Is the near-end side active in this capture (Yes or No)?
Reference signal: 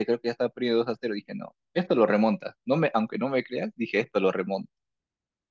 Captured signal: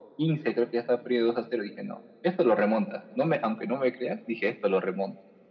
No